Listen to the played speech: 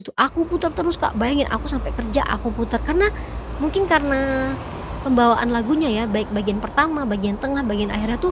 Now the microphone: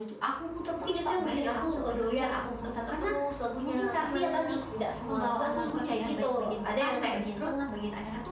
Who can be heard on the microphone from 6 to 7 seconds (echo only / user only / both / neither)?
both